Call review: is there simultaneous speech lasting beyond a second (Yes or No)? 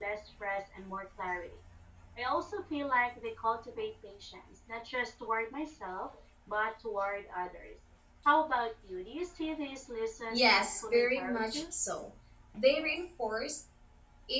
Yes